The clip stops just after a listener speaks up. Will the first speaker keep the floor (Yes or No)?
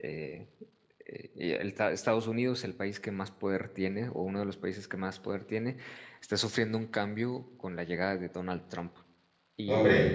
No